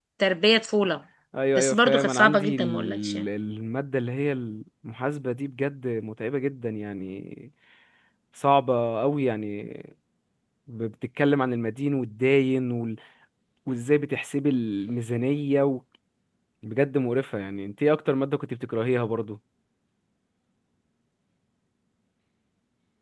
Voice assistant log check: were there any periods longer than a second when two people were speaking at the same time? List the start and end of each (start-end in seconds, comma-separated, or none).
1.6-3.2